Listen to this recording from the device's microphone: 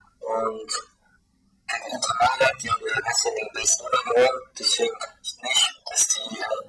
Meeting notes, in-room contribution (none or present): none